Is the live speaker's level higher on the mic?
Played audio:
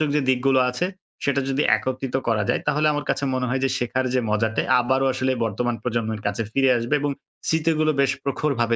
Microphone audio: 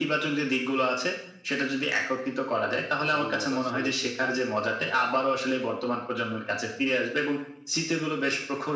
No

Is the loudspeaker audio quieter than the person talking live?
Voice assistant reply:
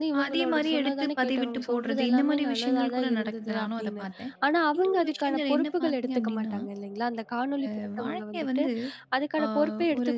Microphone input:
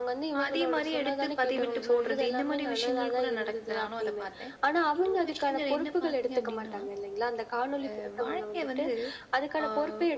No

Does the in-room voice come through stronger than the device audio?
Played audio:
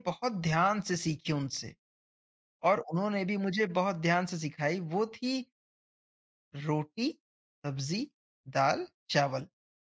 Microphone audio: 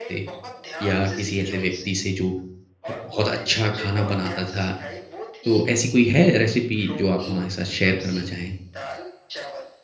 Yes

